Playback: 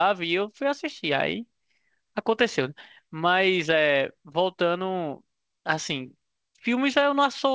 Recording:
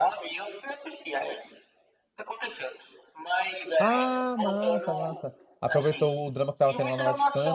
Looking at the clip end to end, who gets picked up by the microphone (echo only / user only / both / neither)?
both